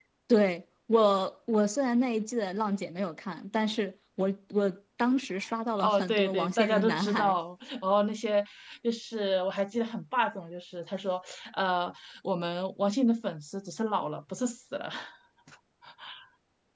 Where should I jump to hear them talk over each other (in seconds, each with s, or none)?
5.8 s